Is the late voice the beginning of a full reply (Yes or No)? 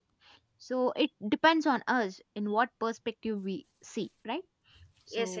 Yes